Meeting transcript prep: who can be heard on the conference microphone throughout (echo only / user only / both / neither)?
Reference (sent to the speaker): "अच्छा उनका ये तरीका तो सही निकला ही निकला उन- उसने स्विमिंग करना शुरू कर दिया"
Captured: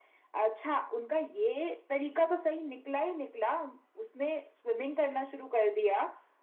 echo only